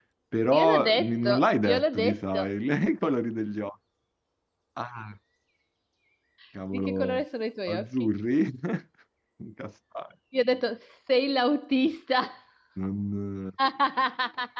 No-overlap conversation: No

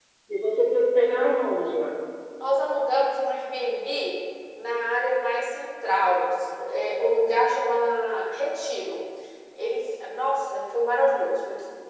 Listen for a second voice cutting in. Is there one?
No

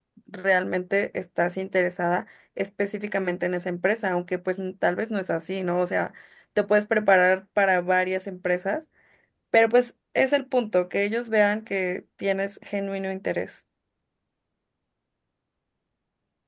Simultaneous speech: No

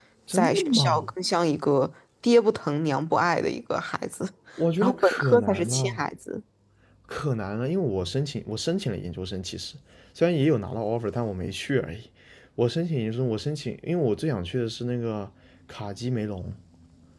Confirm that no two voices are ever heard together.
No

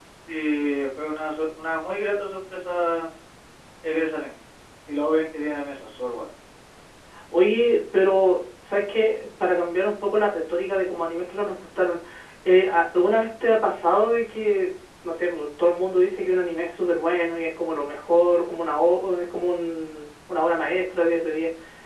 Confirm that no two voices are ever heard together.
Yes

